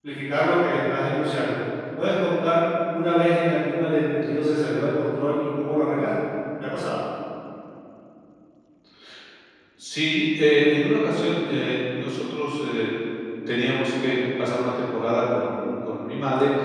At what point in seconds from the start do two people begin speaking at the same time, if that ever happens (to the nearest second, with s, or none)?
none